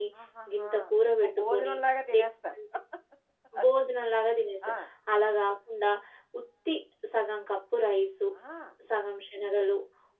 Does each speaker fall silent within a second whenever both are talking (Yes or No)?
Yes